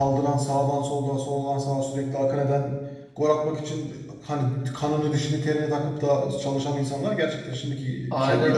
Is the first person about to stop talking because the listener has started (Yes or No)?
Yes